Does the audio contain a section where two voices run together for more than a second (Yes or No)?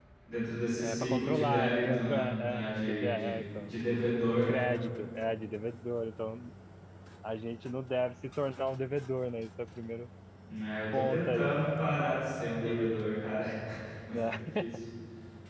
Yes